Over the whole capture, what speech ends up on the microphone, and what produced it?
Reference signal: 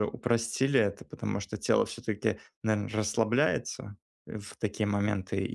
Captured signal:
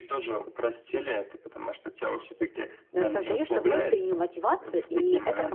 both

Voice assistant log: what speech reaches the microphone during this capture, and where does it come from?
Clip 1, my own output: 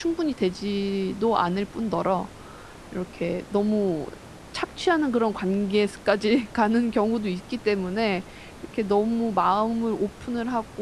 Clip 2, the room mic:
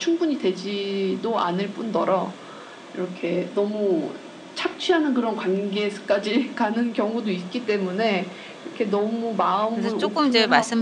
both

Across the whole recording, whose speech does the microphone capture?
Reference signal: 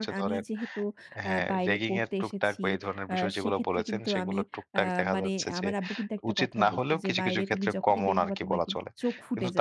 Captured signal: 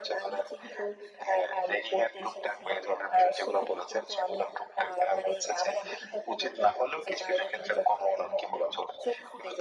echo only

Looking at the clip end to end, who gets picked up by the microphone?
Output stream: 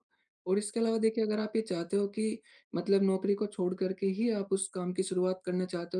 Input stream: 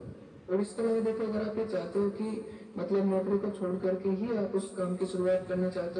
echo only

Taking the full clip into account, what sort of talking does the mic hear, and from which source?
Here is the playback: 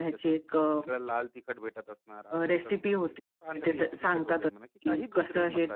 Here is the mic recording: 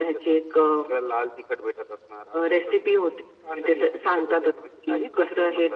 echo only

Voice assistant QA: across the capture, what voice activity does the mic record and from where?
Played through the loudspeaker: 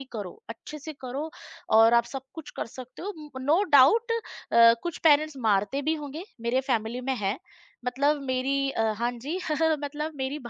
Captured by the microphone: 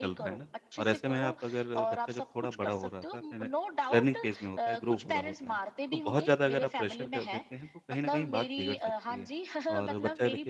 both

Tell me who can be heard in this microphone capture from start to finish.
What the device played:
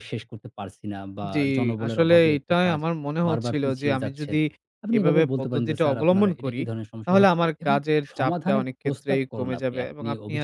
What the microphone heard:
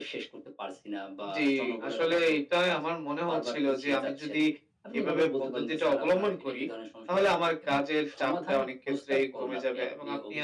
echo only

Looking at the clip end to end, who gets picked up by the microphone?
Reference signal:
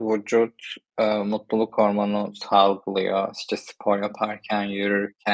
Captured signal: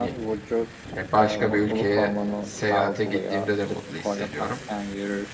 both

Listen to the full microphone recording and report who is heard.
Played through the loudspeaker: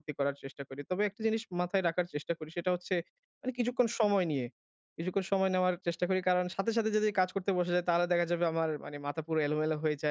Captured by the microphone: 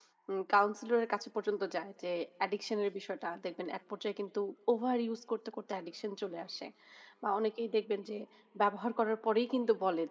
user only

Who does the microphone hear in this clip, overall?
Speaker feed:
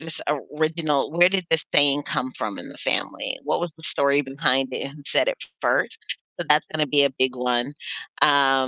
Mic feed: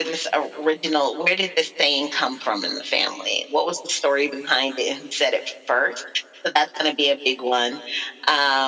echo only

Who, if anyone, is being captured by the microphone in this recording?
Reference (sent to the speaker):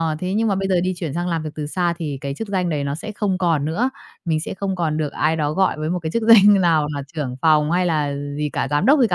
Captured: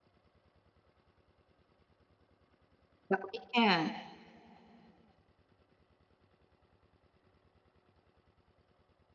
user only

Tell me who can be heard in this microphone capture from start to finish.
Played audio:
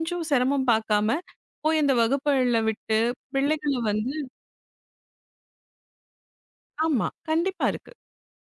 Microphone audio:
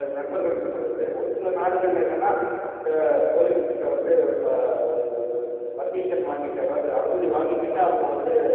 user only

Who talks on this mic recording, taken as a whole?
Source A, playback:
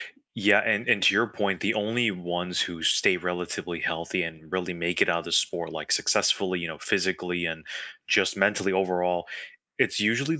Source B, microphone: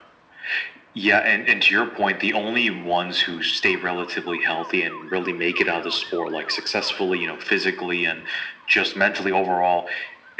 echo only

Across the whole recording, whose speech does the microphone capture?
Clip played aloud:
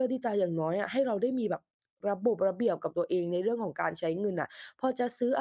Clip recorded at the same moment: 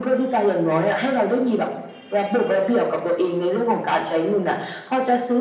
echo only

